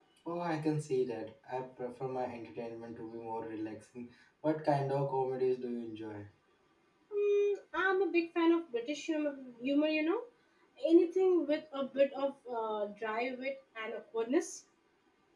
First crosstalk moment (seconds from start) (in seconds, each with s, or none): none